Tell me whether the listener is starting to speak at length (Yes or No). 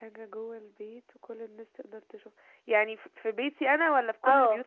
Yes